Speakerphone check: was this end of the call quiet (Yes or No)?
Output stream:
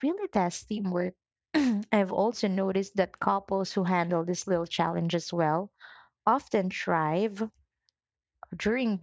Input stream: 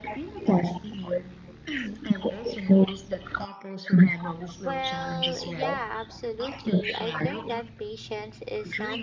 No